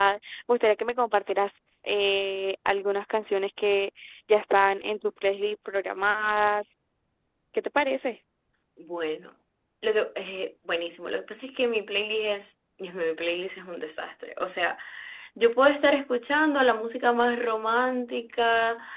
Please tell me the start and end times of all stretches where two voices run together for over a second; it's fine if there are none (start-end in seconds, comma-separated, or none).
none